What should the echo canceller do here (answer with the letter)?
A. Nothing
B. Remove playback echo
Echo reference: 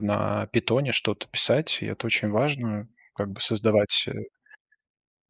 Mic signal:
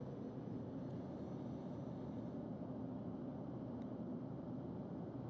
A